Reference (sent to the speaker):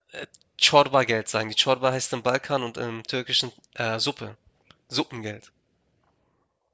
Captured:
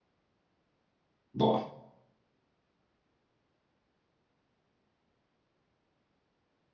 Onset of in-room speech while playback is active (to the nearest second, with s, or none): 1 s